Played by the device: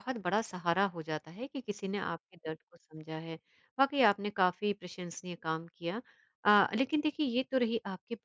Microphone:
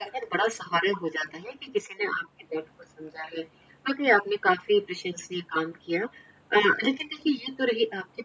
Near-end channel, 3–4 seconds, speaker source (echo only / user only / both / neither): echo only